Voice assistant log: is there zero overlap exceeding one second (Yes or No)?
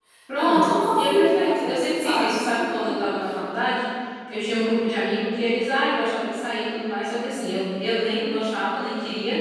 No